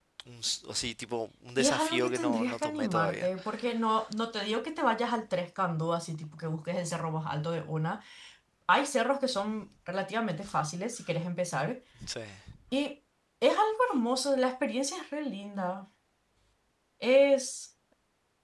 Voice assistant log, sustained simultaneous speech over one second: present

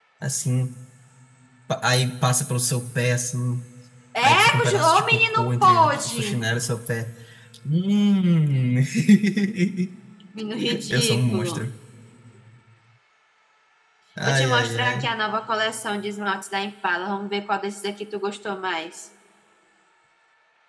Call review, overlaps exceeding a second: present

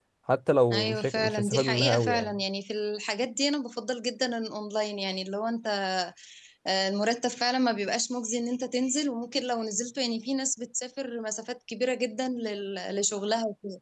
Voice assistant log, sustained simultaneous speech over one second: present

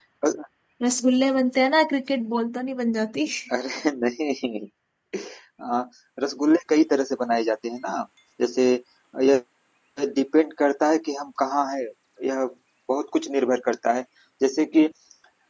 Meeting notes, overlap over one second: none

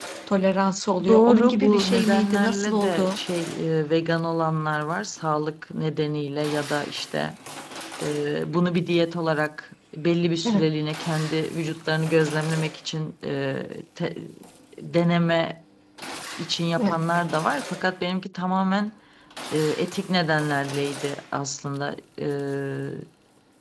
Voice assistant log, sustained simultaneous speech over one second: present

